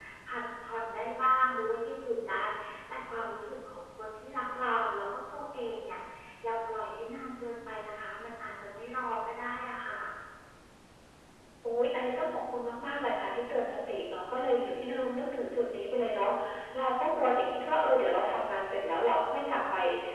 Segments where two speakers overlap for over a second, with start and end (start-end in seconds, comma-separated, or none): none